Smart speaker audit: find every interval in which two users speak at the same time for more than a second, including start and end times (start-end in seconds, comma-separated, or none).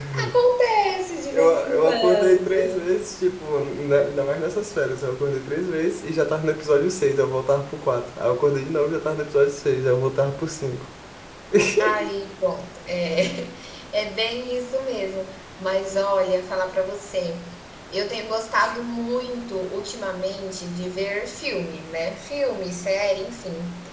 1.3-2.8